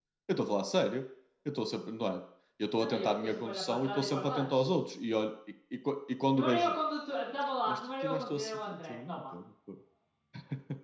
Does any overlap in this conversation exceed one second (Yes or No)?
Yes